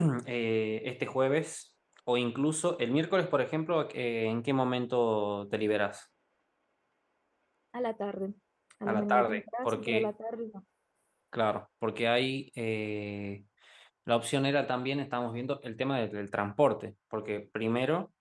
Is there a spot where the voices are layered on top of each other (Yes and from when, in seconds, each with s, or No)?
Yes, from 8.8 s